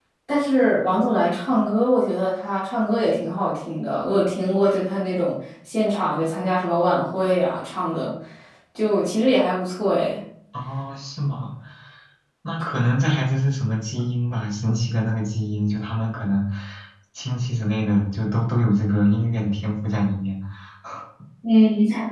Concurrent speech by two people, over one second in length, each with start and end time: none

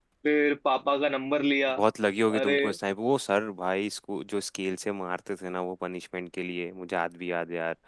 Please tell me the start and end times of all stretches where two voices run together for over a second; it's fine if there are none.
none

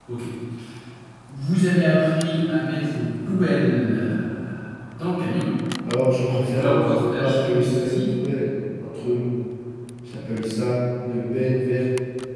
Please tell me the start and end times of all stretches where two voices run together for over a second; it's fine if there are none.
6.3-8.1

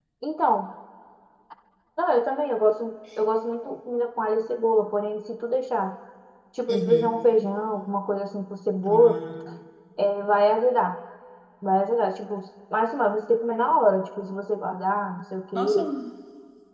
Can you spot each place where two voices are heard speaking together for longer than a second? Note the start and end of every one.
none

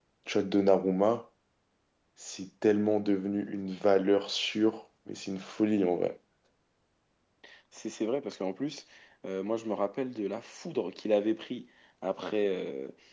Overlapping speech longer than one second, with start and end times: none

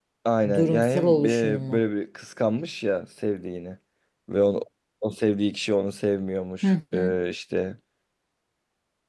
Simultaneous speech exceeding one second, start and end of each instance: 0.5-1.8

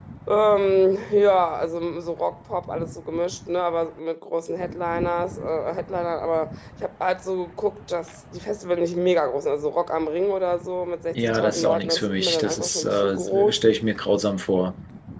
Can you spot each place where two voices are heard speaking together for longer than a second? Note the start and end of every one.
11.1-13.6

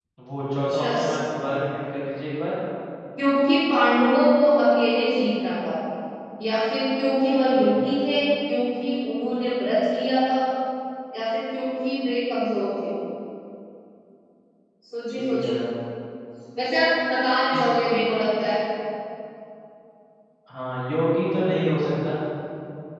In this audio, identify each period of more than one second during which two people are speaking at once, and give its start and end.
none

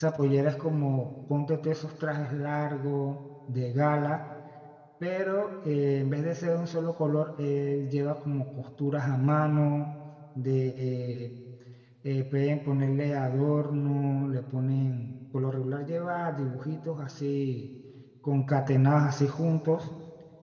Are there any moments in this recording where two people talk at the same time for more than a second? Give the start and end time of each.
none

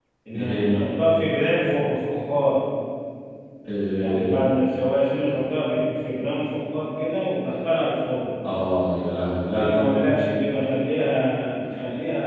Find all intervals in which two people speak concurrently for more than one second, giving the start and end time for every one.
none

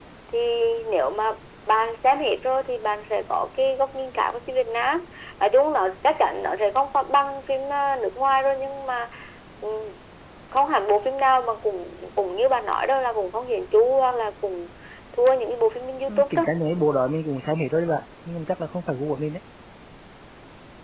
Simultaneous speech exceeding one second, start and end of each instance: none

